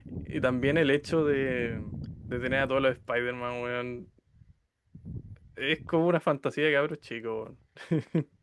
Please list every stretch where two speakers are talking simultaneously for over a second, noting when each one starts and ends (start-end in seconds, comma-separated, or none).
none